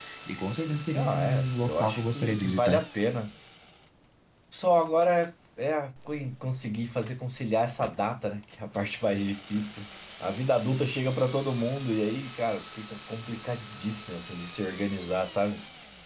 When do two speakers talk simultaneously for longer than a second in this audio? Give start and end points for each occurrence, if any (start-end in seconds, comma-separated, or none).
0.9-2.9